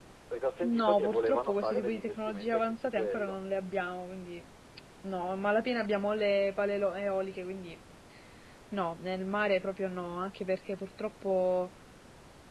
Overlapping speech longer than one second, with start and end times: 0.6-3.4

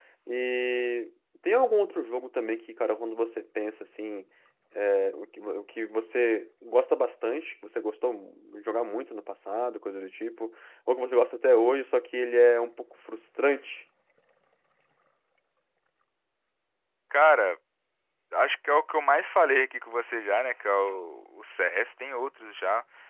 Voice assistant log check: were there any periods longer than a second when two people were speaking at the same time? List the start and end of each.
none

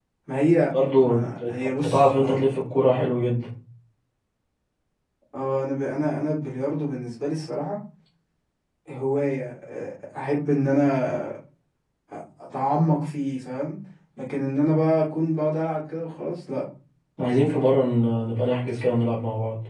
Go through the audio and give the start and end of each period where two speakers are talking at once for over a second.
1.0-2.5

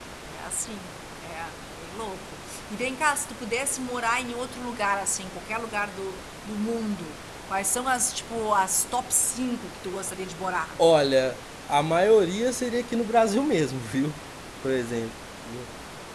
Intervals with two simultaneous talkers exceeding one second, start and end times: none

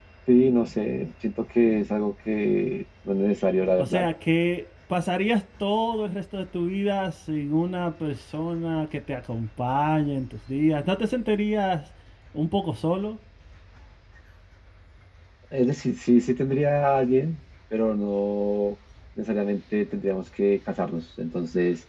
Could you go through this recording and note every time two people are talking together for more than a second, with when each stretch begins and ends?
none

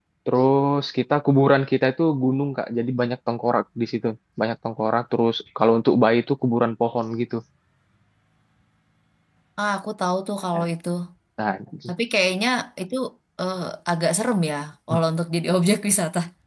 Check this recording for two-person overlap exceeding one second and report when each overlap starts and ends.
none

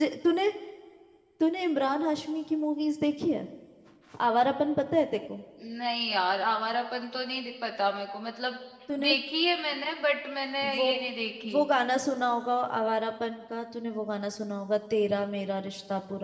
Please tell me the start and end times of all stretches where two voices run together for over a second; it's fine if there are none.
none

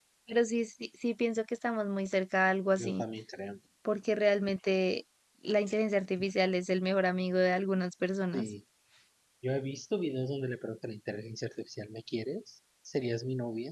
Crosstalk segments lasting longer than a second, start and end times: none

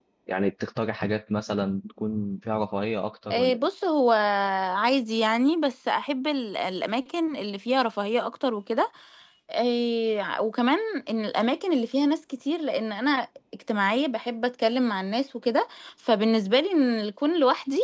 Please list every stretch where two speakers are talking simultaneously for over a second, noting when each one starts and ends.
none

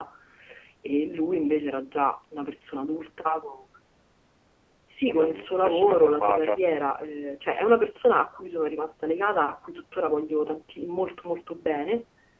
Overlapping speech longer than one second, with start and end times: 5.1-6.6

